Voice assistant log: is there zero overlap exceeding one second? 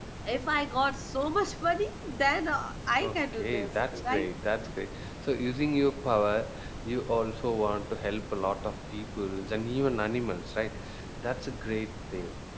No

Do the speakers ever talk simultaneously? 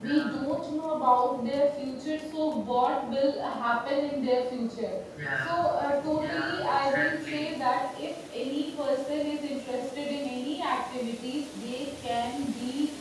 Yes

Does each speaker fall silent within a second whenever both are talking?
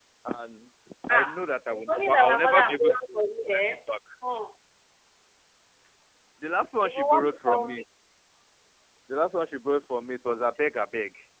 No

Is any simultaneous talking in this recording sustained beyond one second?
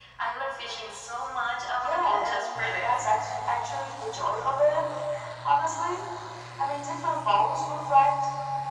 Yes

